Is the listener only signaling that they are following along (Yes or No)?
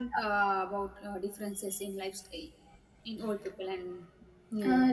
No